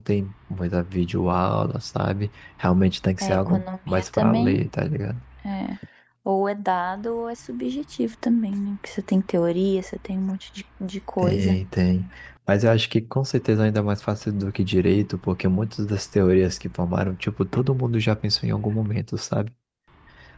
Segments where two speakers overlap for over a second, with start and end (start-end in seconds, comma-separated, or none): 3.2-4.6